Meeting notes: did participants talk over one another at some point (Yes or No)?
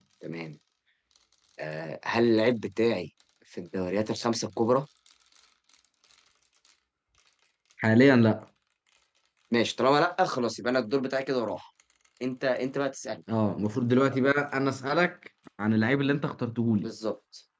No